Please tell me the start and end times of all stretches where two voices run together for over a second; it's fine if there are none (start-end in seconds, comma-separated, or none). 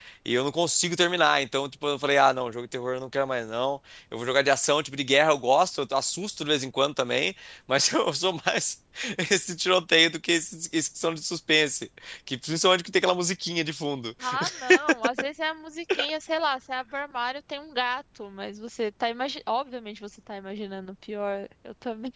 none